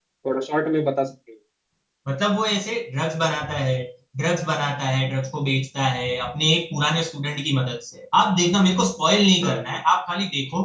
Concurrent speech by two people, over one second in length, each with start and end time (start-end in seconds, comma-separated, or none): none